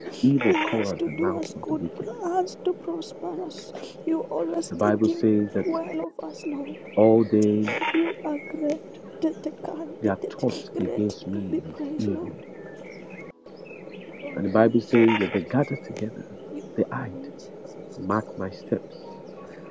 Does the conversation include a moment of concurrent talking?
Yes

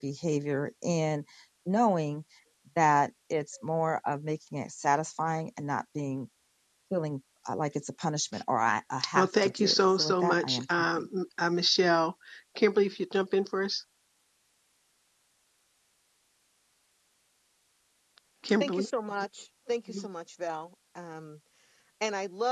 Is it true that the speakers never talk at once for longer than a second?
No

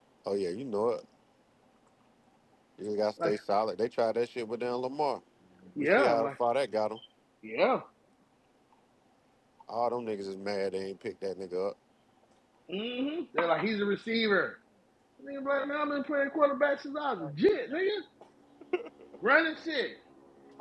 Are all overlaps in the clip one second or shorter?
Yes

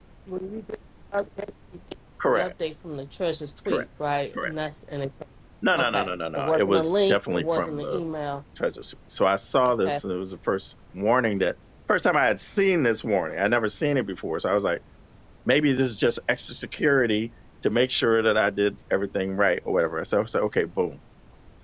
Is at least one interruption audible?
Yes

